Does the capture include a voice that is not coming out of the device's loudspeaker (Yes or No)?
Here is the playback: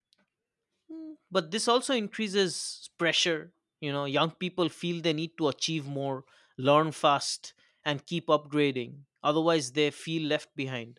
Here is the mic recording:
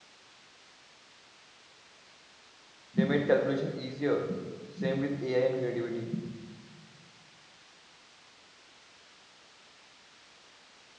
Yes